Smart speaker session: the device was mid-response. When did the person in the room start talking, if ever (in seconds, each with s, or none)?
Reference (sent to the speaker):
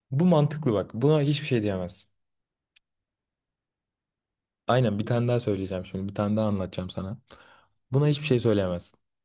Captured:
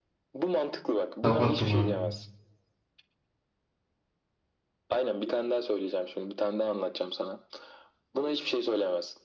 1.2 s